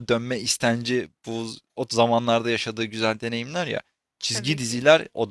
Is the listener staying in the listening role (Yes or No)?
Yes